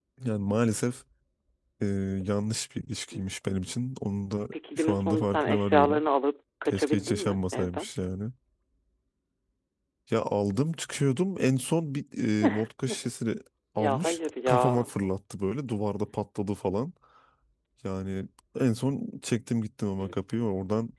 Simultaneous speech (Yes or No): Yes